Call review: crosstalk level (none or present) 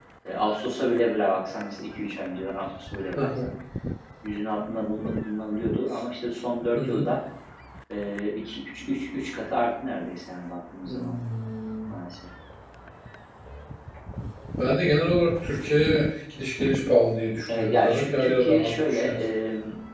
present